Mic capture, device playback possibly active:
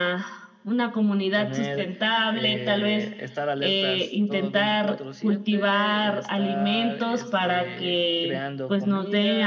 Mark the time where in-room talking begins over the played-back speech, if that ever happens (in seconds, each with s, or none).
1.3 s